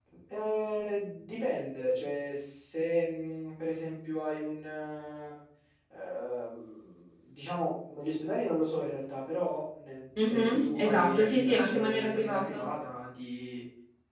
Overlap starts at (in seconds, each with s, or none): 10.2 s